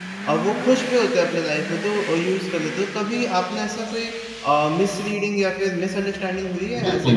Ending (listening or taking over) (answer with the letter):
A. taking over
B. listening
A